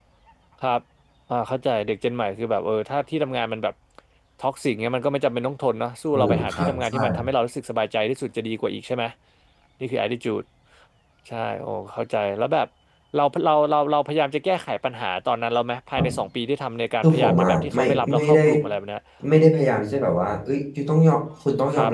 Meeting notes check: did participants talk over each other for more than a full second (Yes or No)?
Yes